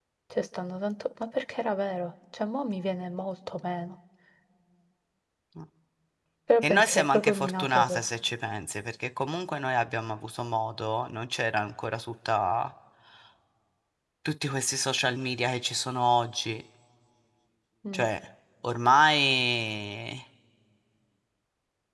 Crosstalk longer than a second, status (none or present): present